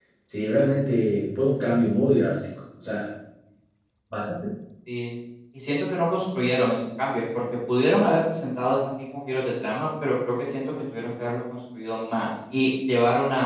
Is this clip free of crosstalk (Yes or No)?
Yes